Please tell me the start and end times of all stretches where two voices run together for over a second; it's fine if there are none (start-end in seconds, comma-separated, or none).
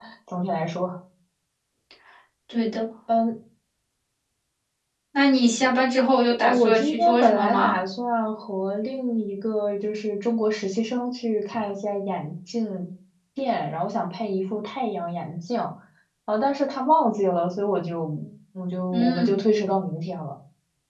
6.4-7.7